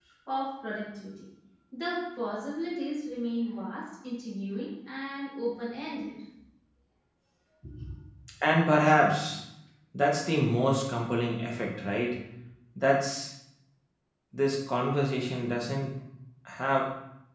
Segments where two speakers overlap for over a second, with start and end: none

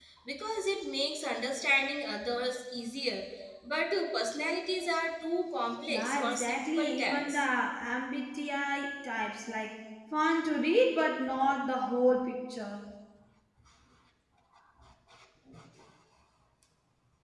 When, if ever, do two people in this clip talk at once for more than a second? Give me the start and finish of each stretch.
5.9-7.4

